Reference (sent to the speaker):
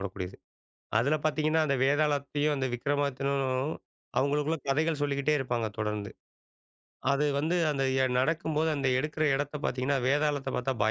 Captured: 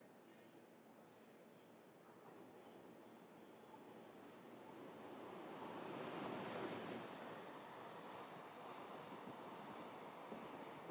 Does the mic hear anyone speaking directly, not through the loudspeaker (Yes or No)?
No